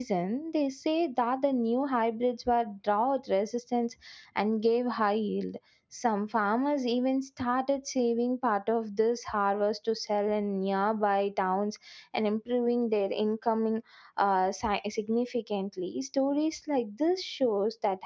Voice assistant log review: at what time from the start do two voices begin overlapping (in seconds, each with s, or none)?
none